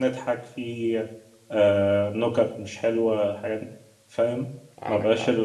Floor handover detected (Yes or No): No